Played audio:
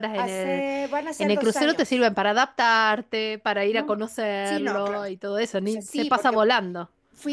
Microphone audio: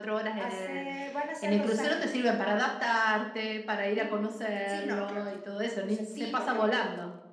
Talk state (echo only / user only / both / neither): echo only